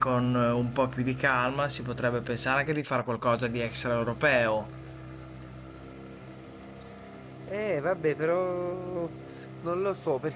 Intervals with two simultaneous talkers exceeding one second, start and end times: none

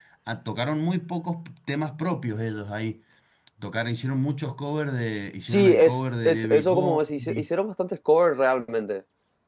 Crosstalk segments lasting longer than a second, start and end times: 5.5-7.4

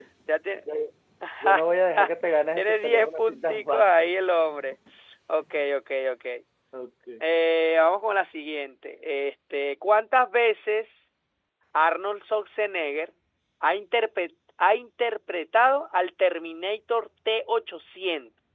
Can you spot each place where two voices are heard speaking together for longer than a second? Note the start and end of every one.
2.6-4.1

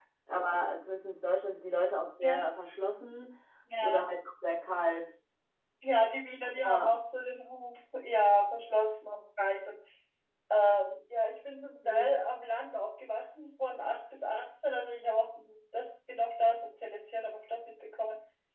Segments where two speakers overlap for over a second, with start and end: none

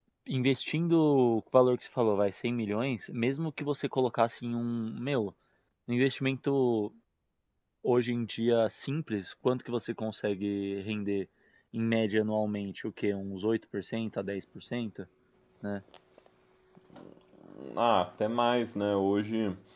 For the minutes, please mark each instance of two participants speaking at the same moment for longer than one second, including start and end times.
none

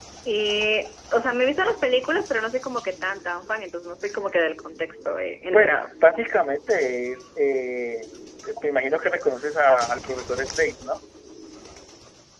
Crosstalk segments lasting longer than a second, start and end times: none

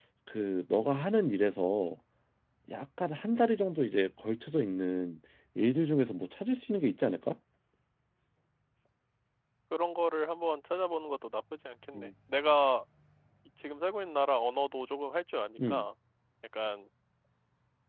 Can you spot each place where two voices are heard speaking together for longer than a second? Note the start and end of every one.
none

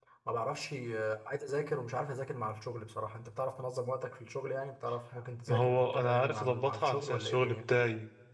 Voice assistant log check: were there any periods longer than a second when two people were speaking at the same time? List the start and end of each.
5.5-7.6

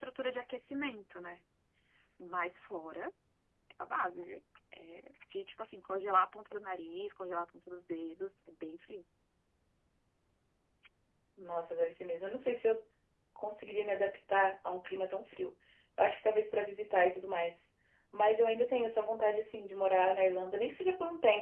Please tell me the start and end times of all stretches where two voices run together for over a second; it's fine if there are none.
none

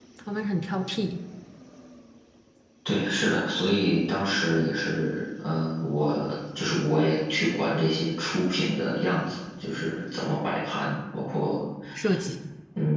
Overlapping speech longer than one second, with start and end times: none

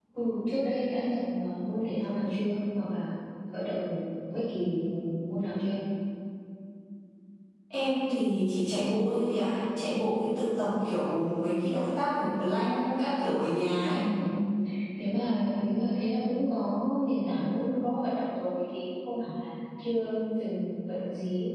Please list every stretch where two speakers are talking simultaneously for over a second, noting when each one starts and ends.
none

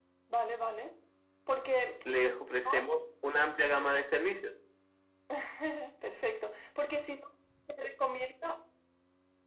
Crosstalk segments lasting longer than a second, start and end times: none

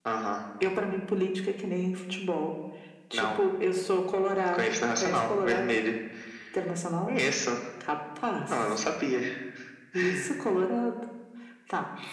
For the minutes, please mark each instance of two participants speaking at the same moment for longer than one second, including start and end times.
4.5-5.8

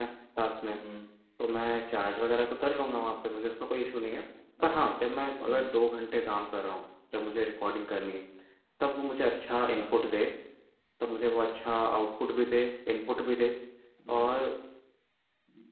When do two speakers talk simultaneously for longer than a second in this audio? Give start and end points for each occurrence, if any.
none

